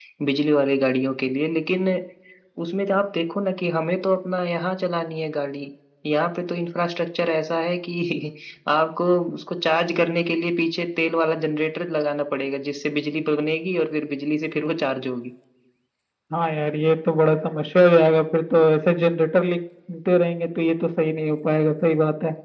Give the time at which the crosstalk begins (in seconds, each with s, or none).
none